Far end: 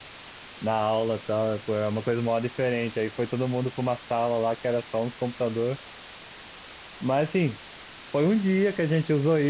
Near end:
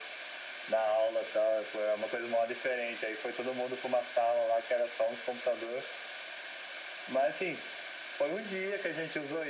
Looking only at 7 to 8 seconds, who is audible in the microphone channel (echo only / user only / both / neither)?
echo only